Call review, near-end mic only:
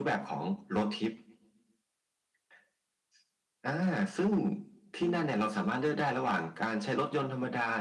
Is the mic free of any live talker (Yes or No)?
No